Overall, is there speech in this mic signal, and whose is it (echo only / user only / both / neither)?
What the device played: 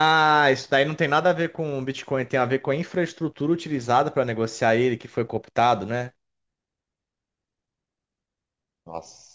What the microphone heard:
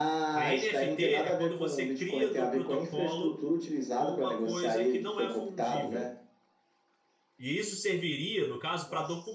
both